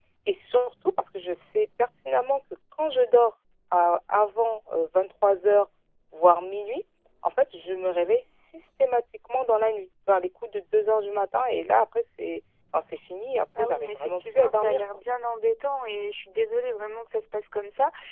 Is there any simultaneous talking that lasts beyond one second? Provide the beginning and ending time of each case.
13.6-14.8

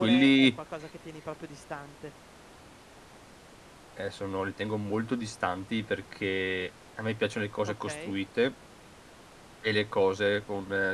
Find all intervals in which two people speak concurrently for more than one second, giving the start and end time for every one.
none

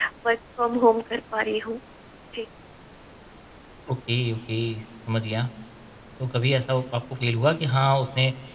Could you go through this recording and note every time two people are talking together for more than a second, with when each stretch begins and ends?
none

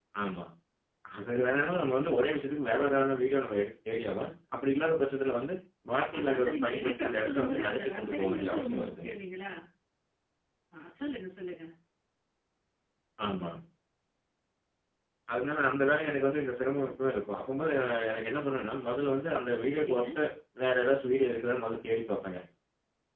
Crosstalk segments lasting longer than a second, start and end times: 6.2-9.1

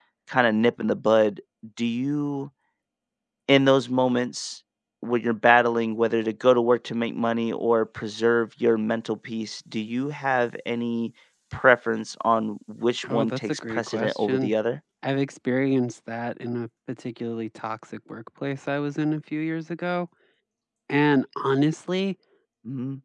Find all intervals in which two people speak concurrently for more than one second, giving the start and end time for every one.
13.1-14.5

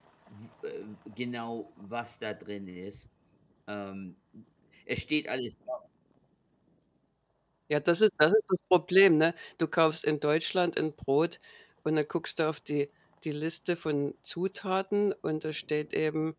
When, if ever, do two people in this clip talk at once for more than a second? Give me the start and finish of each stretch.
none

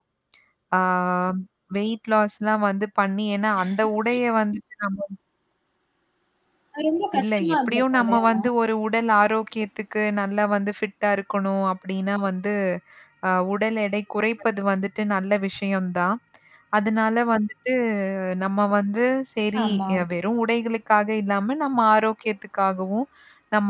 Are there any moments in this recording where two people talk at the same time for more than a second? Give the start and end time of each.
7.2-8.4

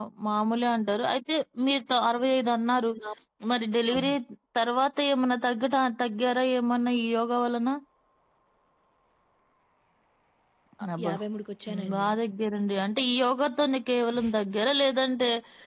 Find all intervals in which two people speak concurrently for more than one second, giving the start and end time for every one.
none

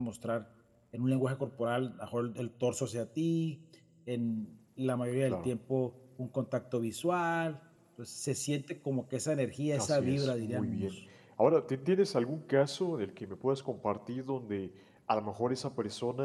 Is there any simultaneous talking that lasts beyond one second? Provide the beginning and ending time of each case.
9.7-11.0

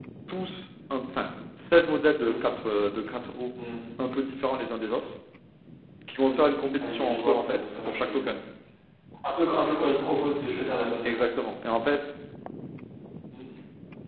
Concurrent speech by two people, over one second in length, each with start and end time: 6.8-8.3

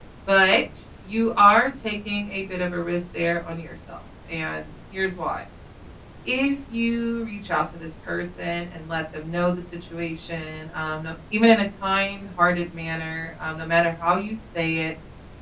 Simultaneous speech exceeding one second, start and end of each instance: none

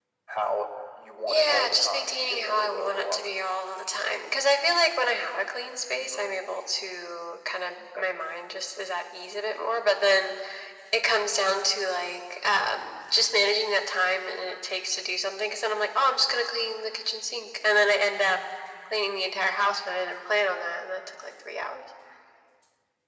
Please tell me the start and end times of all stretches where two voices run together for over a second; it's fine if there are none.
1.3-3.3

